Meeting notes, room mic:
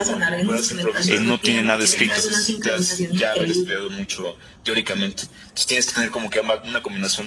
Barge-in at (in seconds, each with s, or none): 1.0 s